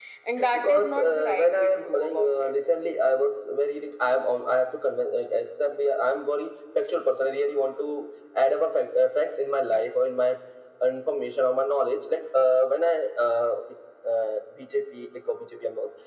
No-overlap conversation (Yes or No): No